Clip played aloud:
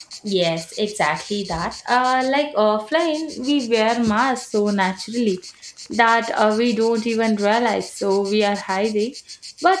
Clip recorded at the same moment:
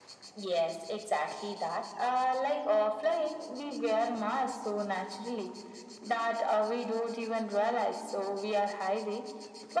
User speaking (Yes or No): No